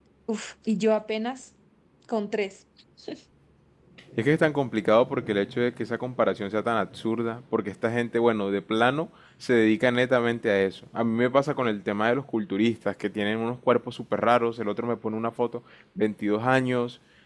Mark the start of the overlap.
none

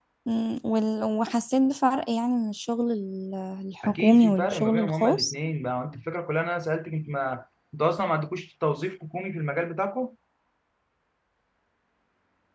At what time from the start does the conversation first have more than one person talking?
3.8 s

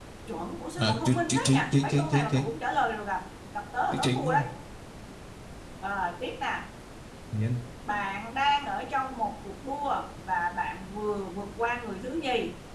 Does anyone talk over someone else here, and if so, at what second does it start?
0.8 s

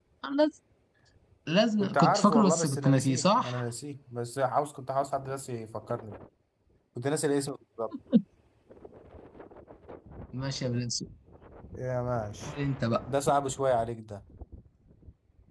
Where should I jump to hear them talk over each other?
1.8 s

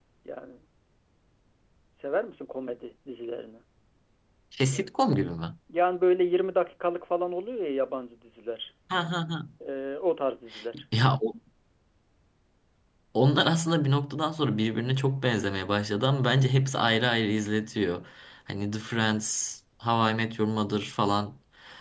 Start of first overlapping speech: none

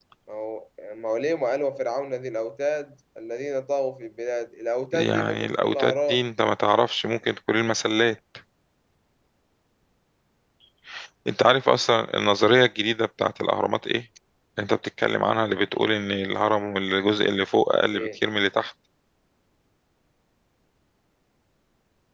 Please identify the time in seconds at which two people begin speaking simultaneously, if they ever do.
4.9 s

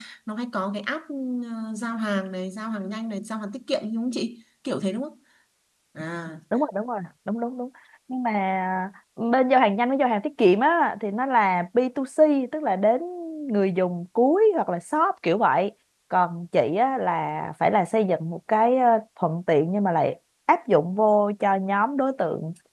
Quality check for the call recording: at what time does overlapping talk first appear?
none

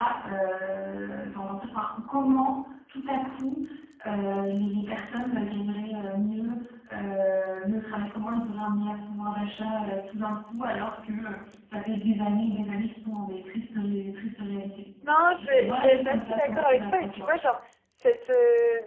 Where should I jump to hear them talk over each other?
15.4 s

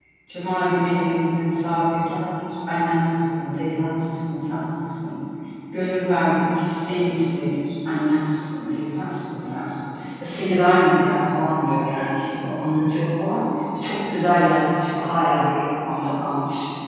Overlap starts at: none

